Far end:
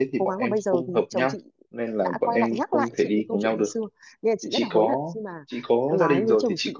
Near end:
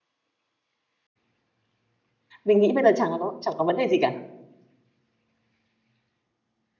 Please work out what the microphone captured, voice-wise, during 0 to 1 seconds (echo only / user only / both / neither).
neither